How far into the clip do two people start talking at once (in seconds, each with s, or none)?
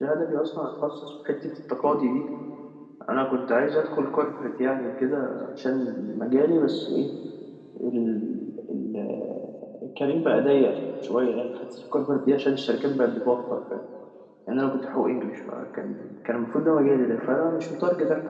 none